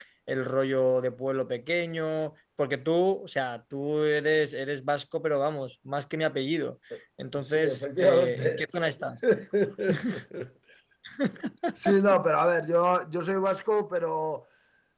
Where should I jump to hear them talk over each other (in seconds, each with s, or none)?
7.4 s